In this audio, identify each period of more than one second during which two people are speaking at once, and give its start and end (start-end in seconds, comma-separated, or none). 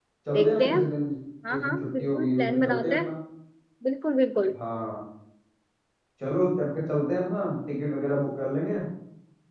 1.5-3.1